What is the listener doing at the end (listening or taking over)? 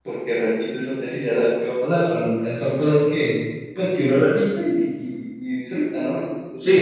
taking over